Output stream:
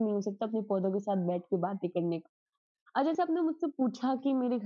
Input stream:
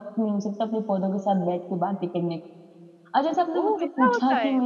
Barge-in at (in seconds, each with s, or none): 3.6 s